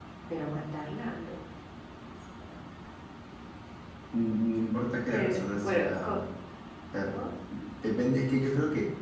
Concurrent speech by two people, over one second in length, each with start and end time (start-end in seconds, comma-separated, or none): 5.0-6.2